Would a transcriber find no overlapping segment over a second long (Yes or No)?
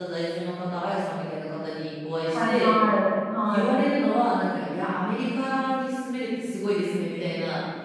Yes